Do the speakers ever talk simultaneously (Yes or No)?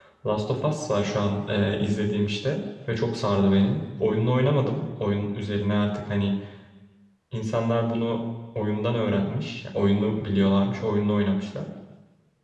No